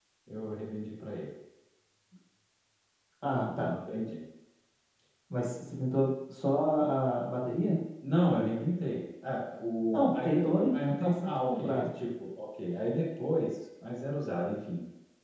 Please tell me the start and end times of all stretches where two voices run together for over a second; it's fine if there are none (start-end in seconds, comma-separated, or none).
9.9-11.9